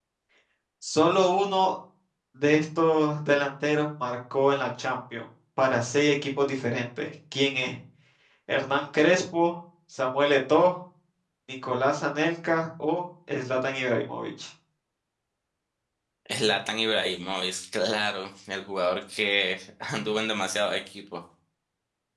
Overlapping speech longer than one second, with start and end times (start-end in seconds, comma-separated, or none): none